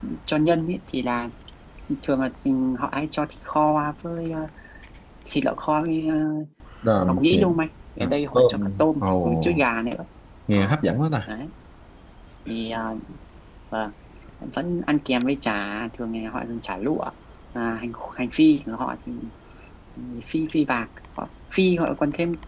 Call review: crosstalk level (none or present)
present